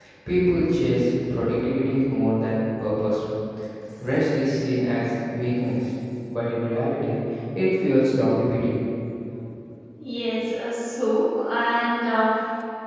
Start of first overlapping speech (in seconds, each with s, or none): none